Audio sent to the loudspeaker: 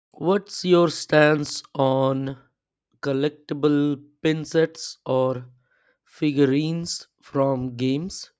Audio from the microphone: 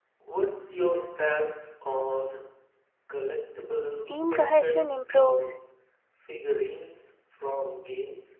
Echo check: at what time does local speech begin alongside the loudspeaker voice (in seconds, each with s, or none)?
4.1 s